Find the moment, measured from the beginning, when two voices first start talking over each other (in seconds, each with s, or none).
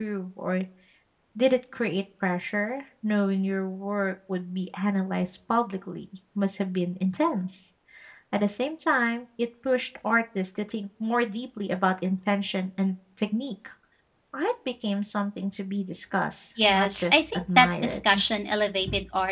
16.6 s